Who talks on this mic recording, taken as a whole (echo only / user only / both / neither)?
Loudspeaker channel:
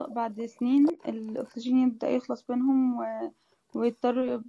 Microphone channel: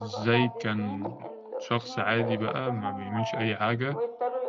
both